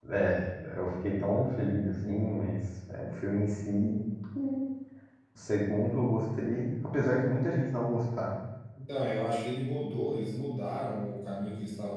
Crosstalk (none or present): none